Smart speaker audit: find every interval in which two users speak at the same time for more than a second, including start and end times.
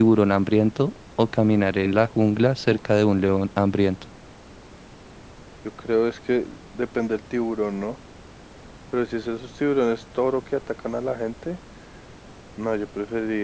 none

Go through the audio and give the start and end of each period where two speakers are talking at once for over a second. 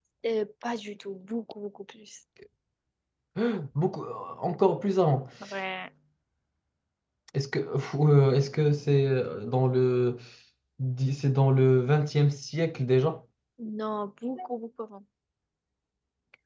none

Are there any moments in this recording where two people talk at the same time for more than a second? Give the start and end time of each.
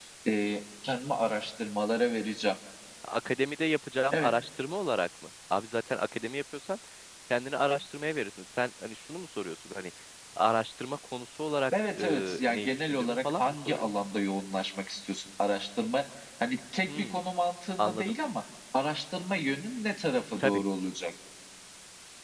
11.8-13.9

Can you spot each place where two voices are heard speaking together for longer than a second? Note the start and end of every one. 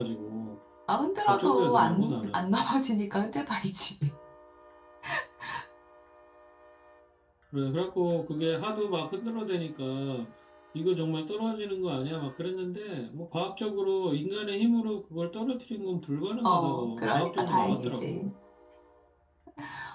1.3-2.5, 16.4-18.3

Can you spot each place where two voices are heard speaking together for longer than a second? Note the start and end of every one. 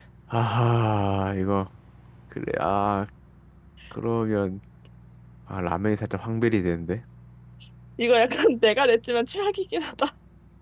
none

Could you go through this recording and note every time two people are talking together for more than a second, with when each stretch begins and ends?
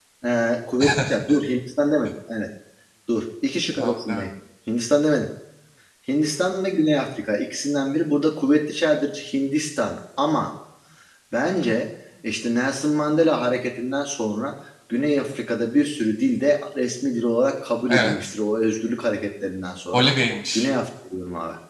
none

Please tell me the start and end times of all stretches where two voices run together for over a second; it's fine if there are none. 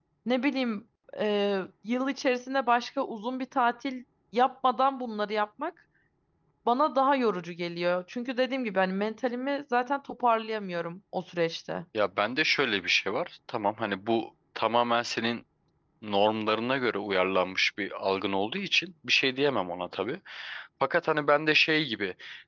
none

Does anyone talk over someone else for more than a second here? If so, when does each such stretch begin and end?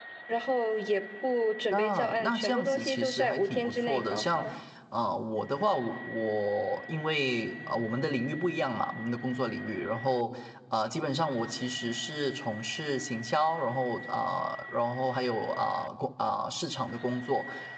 1.7-4.4

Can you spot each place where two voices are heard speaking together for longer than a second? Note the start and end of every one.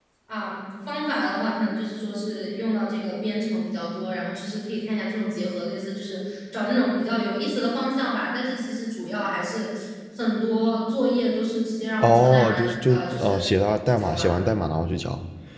12.0-13.5

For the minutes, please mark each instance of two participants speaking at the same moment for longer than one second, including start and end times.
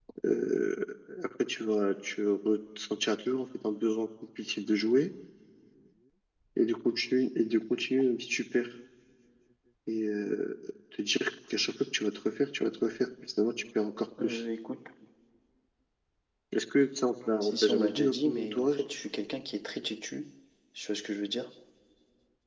17.4-18.8

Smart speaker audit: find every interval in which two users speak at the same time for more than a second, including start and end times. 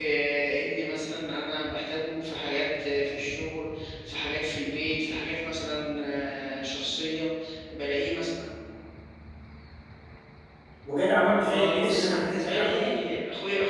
11.4-13.0

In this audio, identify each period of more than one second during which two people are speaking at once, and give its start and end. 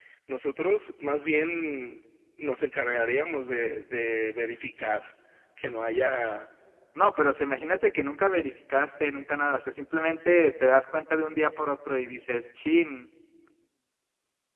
none

